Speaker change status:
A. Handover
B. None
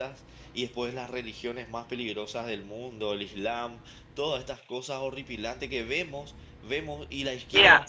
A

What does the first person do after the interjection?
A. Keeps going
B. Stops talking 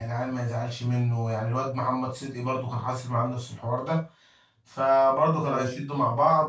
A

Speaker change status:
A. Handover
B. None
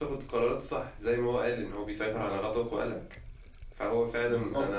B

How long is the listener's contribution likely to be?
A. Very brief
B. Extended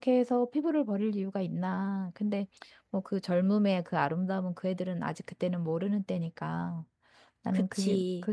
A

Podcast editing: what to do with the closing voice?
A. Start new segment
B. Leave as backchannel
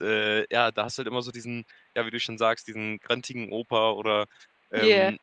B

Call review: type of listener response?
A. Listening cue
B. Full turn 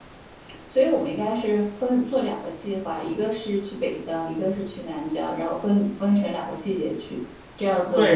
B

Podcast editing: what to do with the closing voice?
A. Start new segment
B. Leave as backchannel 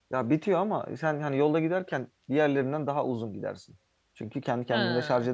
B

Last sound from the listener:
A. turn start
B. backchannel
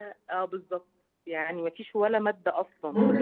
A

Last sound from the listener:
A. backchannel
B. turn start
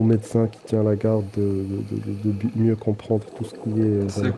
B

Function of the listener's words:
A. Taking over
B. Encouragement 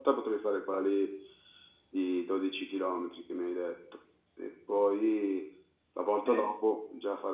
B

